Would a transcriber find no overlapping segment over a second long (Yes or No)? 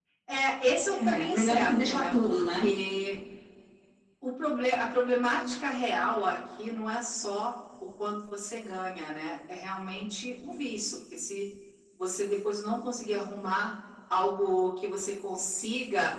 No